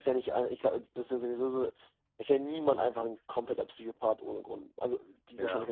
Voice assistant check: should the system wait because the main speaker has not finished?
Yes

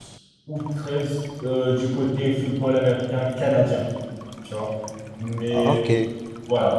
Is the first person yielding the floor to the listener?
No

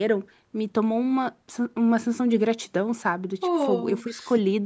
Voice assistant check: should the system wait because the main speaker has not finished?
Yes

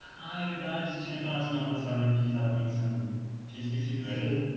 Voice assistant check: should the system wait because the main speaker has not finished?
No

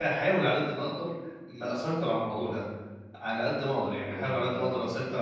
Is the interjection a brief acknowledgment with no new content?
Yes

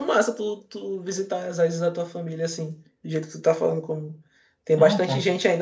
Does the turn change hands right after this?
No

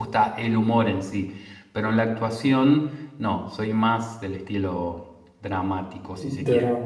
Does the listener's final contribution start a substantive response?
Yes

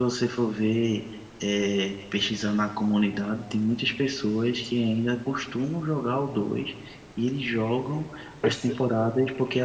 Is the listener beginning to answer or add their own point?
No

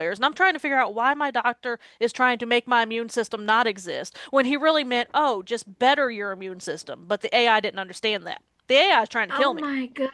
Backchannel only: No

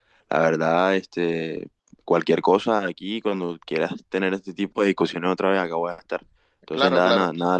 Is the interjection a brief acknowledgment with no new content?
Yes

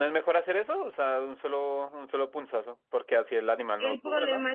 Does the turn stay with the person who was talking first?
No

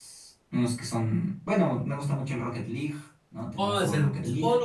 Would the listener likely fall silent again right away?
No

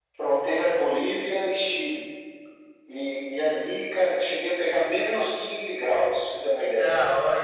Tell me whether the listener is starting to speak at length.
Yes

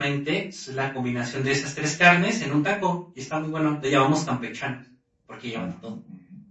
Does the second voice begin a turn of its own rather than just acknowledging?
Yes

